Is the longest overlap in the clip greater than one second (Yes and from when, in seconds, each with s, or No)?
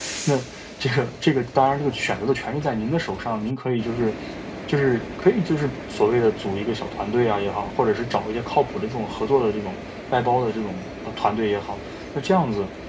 No